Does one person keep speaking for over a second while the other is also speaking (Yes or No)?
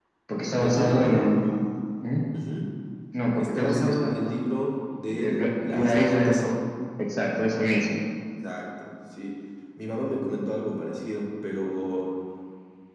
Yes